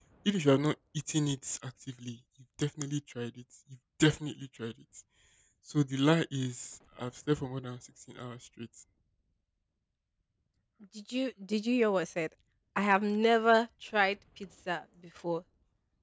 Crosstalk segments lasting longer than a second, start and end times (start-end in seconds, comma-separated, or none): none